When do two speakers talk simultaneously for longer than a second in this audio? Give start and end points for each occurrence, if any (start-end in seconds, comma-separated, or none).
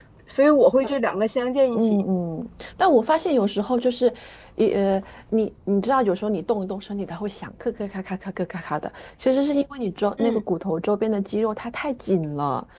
none